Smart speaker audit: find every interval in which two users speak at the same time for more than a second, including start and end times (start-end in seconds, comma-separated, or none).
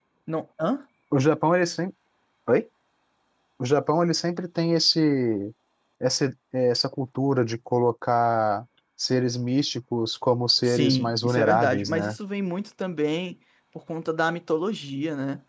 10.6-12.2